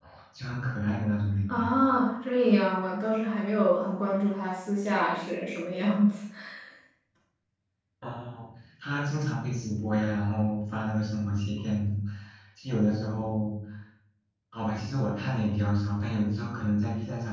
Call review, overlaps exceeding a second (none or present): none